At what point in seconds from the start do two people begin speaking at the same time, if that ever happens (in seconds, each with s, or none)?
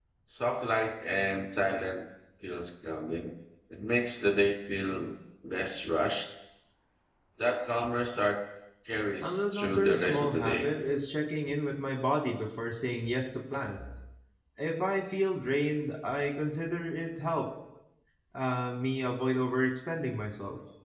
9.2 s